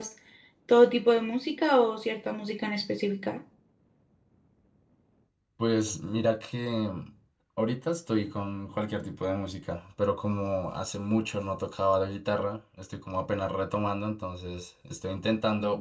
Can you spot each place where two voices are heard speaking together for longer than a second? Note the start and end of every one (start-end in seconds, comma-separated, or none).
none